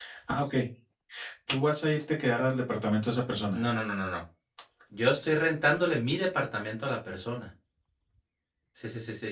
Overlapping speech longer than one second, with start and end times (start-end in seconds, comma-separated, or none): none